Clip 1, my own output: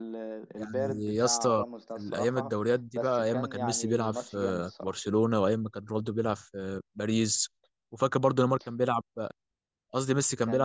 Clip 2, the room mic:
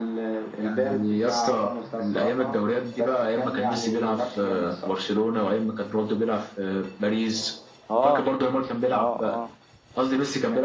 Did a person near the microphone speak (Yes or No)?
Yes